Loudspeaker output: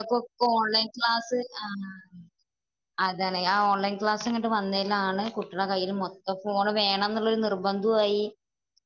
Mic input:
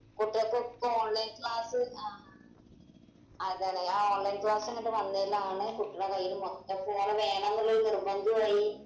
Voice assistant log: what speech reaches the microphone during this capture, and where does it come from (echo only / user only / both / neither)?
echo only